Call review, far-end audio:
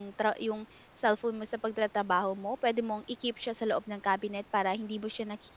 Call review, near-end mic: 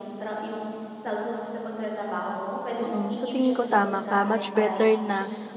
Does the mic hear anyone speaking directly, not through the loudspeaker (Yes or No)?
Yes